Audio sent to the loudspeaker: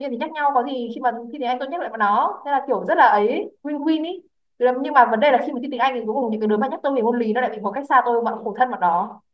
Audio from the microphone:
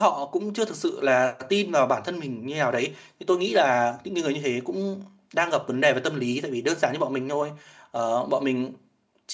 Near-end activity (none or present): present